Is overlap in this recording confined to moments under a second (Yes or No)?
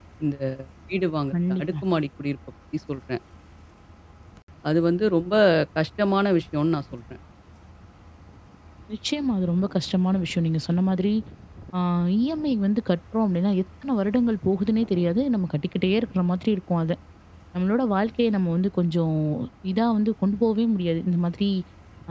Yes